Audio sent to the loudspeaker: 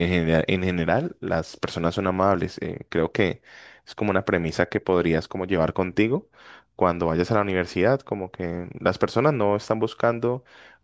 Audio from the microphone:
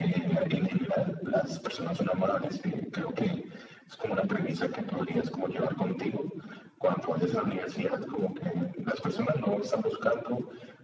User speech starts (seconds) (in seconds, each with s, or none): none